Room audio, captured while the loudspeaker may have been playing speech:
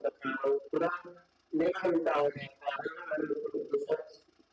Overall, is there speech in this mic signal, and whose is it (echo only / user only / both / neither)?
echo only